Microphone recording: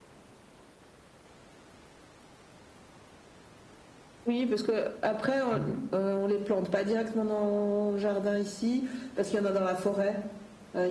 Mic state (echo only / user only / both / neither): both